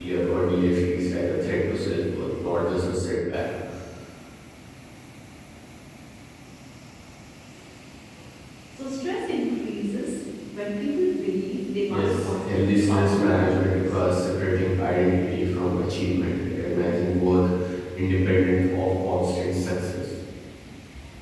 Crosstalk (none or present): present